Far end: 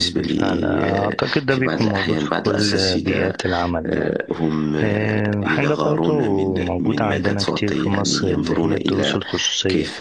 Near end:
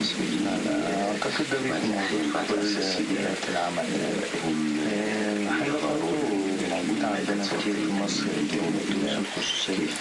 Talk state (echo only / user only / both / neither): echo only